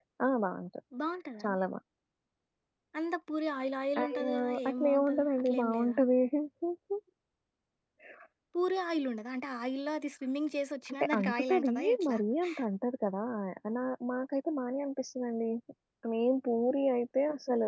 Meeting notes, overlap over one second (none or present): present